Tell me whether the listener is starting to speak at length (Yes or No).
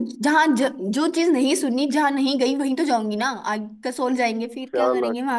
Yes